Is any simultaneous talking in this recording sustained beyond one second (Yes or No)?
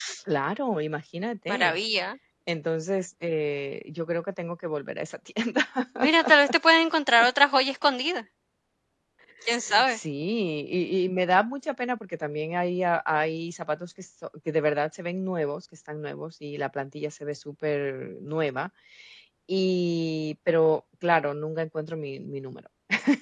No